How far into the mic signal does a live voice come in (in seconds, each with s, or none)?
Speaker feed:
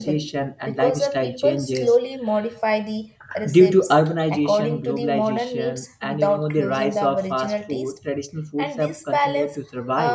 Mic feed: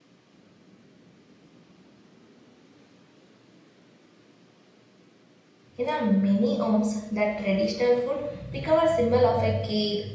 5.8 s